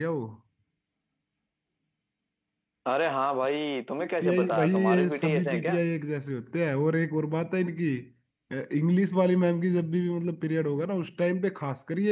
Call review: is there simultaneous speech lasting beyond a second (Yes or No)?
Yes